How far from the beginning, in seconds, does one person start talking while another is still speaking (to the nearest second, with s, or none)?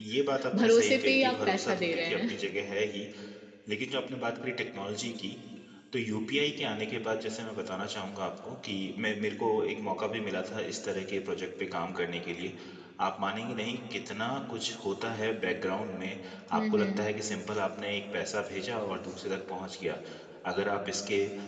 1 s